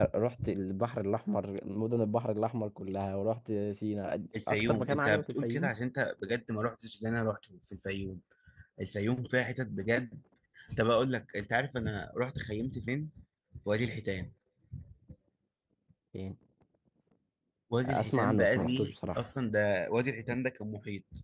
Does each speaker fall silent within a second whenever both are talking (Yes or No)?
No